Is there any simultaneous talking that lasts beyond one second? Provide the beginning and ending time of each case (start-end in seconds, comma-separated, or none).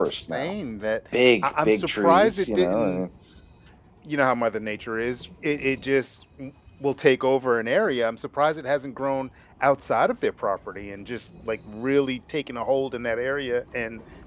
1.4-3.0